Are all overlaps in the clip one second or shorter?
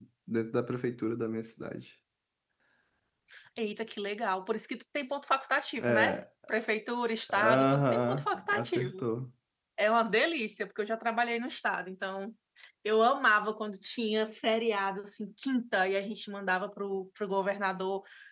No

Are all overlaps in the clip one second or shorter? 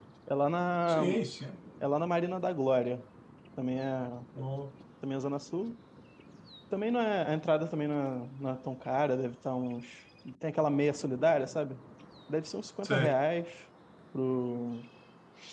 Yes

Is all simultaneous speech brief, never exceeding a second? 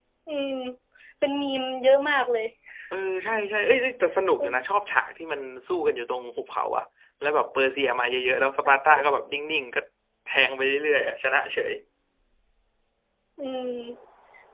Yes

